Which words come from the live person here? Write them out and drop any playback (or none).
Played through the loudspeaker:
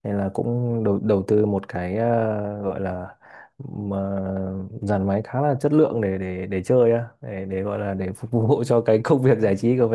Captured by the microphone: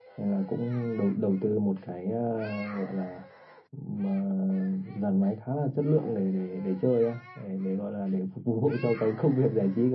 none